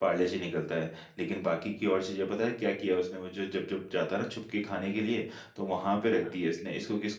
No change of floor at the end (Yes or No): Yes